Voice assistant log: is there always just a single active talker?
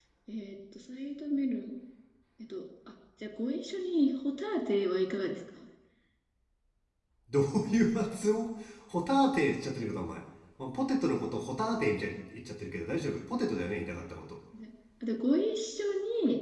Yes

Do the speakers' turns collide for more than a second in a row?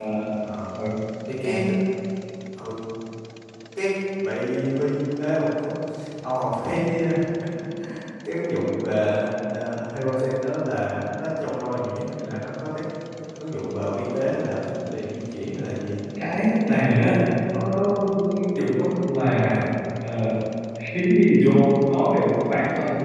No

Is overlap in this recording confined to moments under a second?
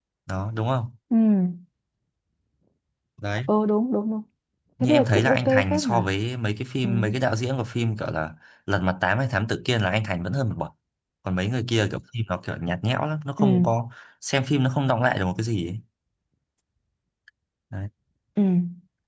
No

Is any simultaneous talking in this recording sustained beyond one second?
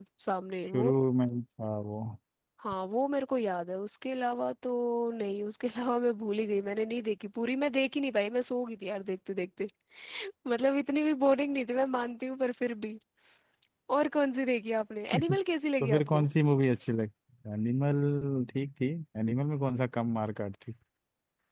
No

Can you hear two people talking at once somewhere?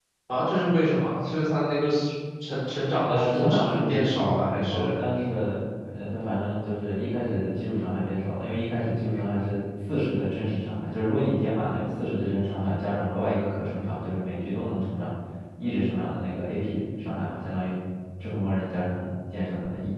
Yes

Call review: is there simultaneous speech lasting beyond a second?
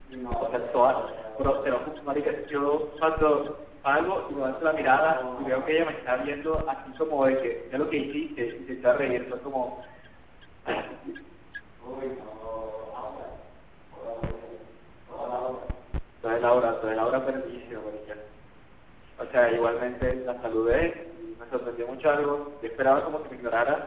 Yes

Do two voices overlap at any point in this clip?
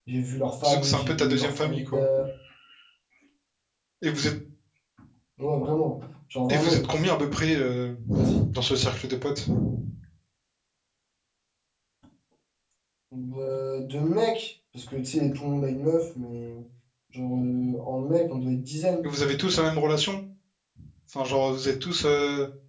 Yes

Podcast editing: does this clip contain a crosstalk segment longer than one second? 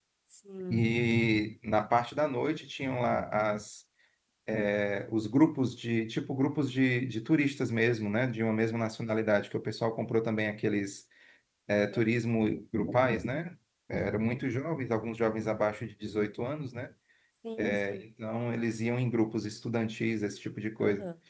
No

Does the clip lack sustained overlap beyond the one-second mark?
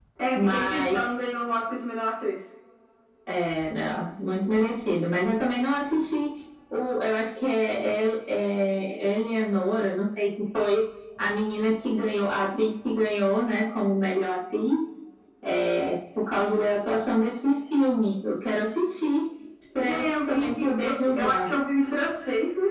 No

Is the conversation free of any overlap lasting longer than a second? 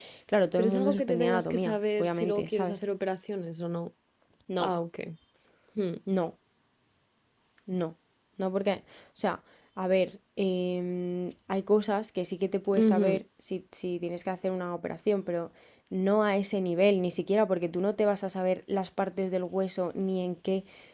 No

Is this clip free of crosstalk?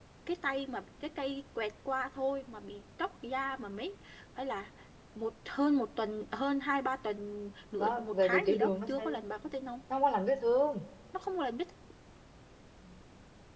No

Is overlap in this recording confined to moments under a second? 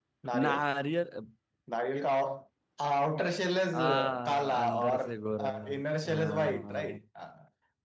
No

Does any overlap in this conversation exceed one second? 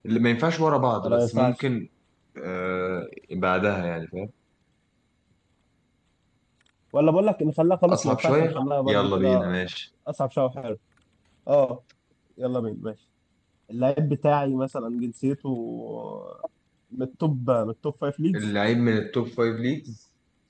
Yes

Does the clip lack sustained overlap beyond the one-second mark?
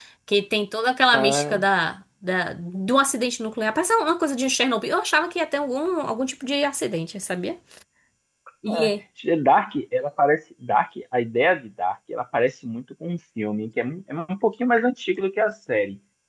Yes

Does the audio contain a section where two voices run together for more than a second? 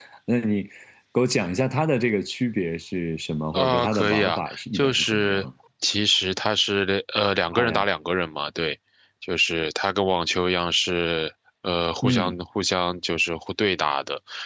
Yes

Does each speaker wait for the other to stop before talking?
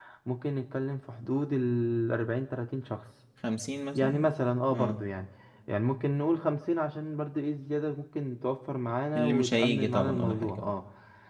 No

